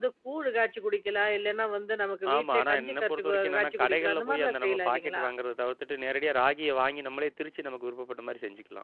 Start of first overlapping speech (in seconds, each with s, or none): 2.2 s